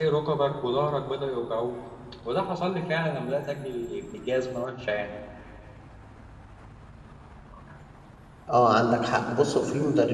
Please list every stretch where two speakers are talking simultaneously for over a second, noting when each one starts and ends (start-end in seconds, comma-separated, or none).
none